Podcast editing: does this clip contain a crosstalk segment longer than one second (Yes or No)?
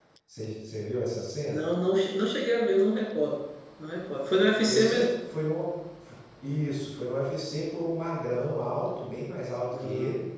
No